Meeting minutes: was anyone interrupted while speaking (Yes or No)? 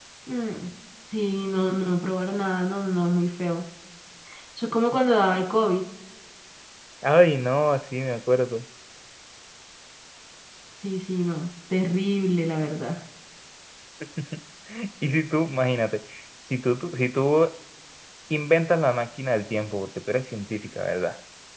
No